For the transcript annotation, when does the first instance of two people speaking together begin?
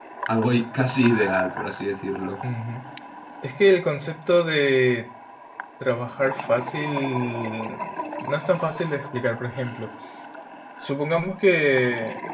none

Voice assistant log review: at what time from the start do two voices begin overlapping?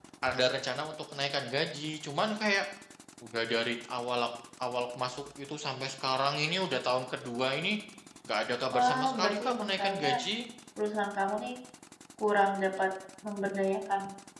9 s

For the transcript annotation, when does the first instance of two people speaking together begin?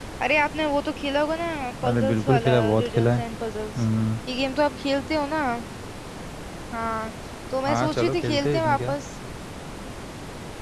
2 s

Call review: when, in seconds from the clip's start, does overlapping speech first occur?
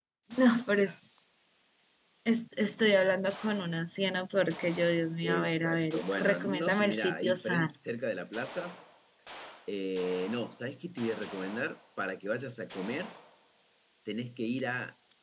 5 s

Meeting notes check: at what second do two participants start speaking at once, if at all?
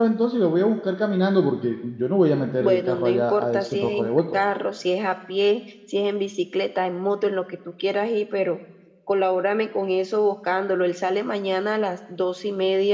3 s

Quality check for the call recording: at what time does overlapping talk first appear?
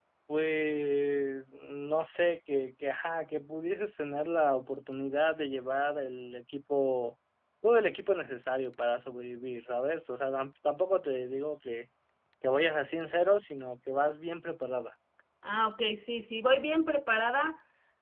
none

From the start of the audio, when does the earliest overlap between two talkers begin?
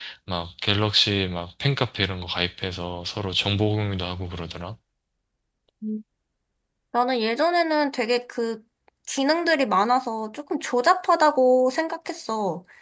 none

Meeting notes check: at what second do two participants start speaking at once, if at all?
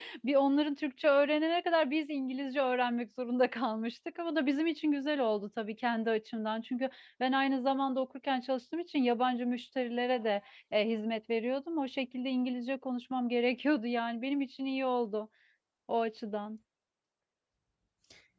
none

